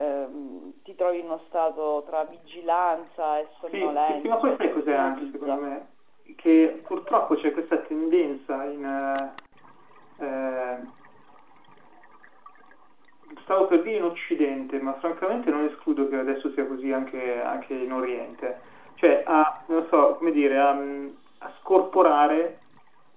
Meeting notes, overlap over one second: present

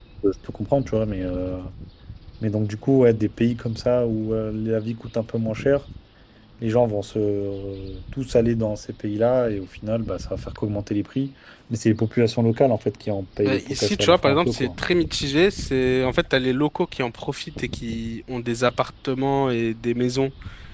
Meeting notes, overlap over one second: present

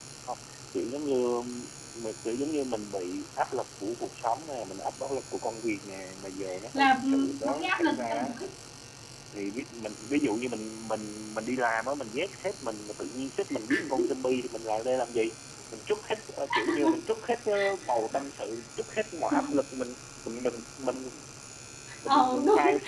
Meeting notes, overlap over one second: present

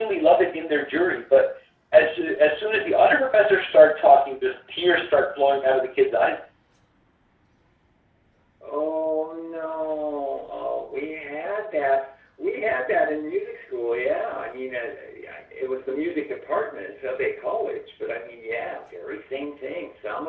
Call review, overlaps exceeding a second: none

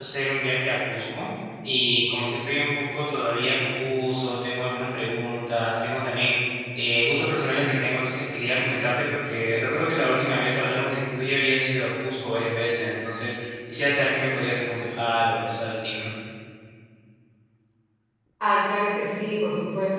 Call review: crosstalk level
none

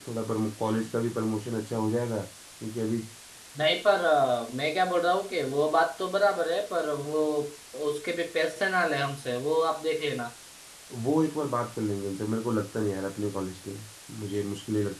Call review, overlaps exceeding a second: none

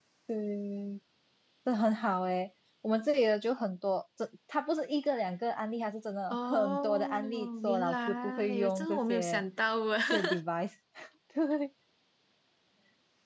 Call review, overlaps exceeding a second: present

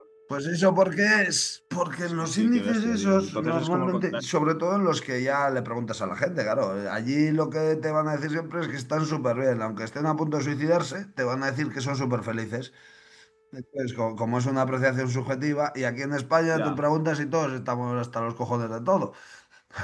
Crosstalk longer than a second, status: present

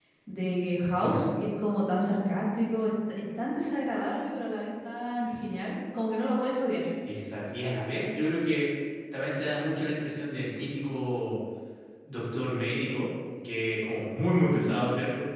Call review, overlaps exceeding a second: none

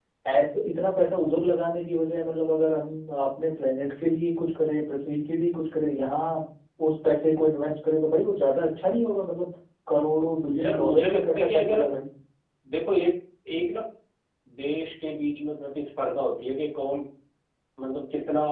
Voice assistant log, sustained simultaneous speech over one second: present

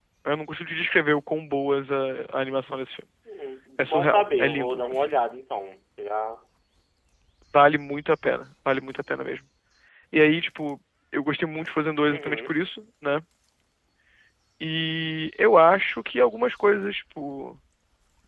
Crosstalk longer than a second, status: present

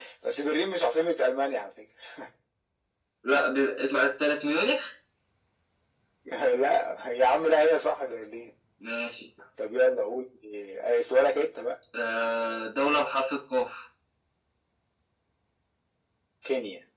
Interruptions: none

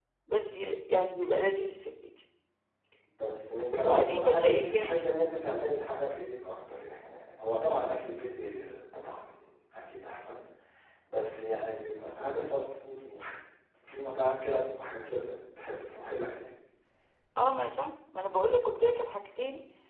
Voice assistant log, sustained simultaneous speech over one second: present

